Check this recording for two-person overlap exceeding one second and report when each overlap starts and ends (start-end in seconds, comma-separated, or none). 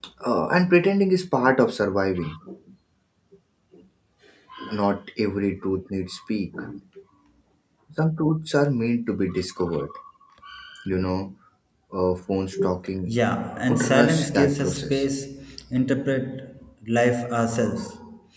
13.7-15.1